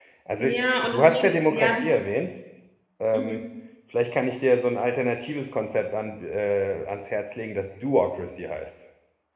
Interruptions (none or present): present